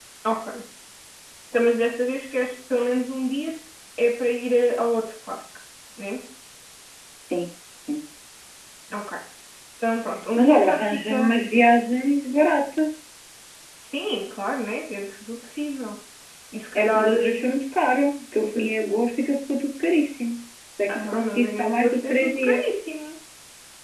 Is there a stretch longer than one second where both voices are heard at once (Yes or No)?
Yes